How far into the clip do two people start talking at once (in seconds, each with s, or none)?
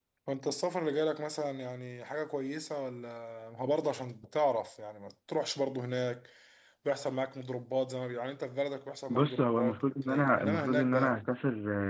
9.1 s